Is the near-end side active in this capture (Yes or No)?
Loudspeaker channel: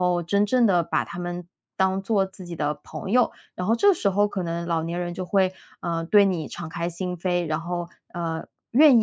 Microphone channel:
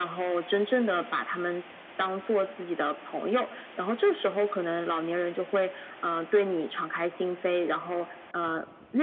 No